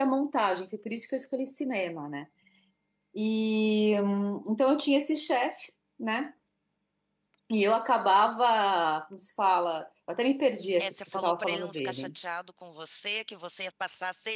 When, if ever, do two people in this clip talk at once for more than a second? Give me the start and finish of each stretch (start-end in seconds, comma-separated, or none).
10.8-12.1